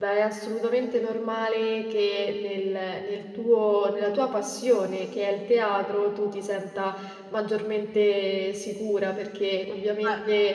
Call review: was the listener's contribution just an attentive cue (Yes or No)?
Yes